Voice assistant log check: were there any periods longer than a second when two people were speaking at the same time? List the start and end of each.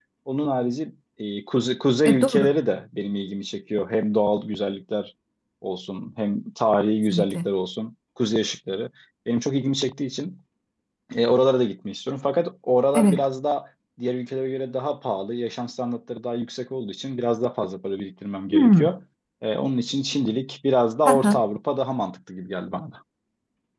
none

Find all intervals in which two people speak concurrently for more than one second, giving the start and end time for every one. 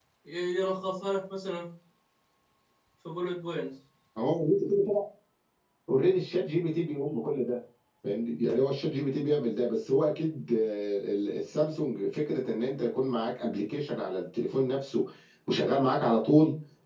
none

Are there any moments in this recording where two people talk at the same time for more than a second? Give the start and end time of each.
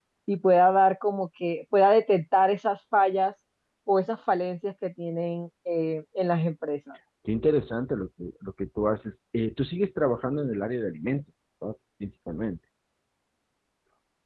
none

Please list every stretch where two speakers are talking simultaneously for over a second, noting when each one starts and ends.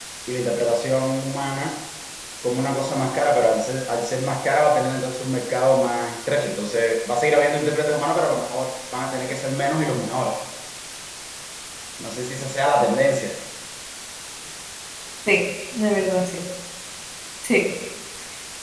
none

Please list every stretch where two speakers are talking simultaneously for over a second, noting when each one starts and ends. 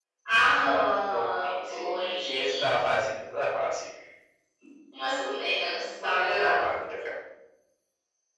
1.1-2.7

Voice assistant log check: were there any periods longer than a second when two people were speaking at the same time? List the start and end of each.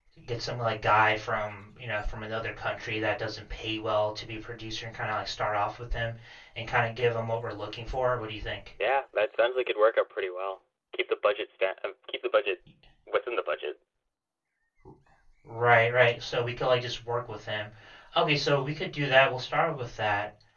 none

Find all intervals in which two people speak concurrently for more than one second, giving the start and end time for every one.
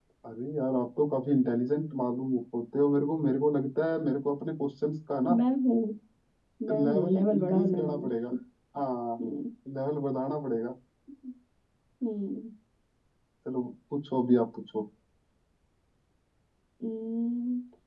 6.8-8.1

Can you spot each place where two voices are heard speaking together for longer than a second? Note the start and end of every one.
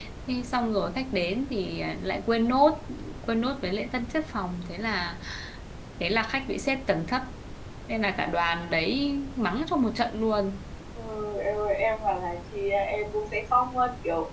none

